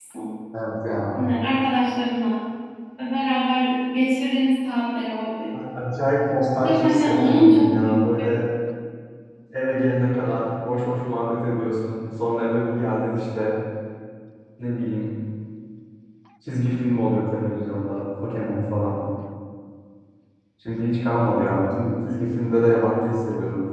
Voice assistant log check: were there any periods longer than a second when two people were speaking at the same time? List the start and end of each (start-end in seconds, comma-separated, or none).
6.6-7.9